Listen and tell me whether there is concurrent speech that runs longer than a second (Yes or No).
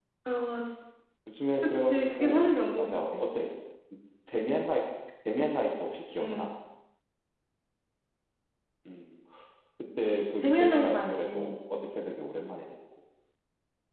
Yes